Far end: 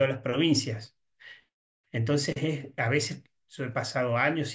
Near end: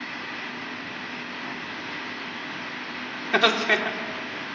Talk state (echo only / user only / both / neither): user only